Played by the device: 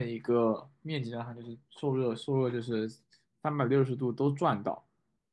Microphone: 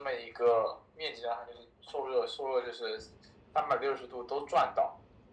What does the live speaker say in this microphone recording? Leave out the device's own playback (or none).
none